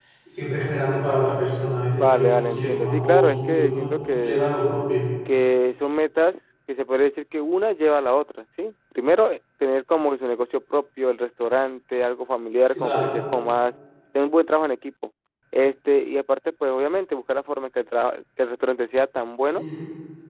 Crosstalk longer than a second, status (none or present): present